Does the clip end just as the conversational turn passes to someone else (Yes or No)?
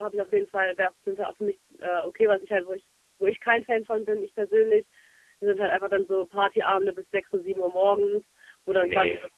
No